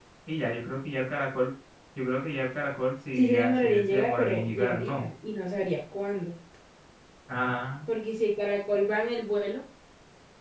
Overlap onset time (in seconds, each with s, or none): 3.2 s